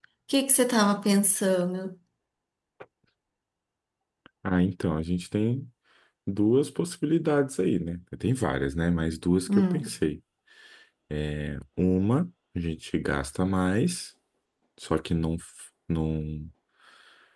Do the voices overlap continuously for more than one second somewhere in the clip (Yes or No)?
No